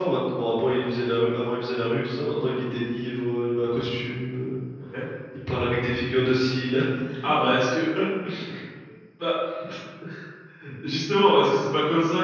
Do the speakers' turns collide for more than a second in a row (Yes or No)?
No